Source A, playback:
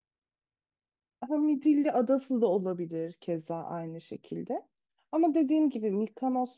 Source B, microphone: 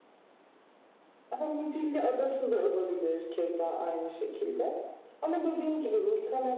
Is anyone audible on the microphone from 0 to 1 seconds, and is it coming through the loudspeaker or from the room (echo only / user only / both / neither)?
neither